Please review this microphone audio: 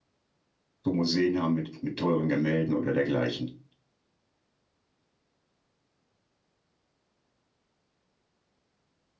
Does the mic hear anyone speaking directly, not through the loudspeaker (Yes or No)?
Yes